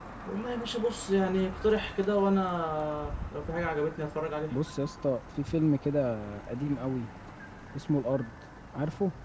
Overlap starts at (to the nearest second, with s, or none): none